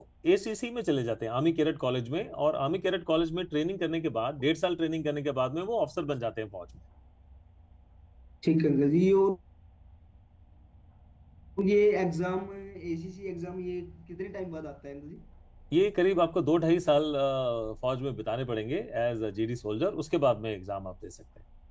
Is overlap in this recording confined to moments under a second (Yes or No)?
Yes